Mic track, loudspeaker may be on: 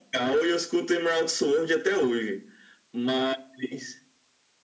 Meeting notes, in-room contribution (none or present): none